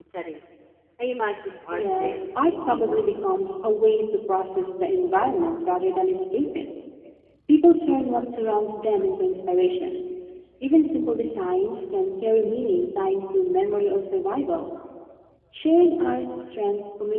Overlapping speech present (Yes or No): Yes